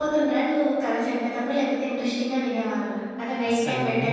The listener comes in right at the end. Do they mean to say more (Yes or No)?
Yes